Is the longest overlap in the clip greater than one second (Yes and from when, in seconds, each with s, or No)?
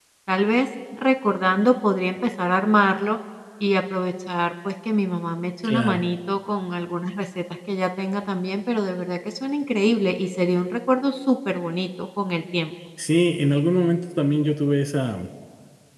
No